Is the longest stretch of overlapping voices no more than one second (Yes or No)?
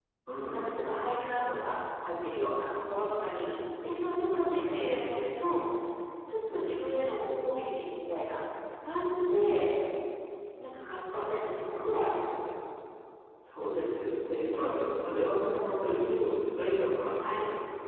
Yes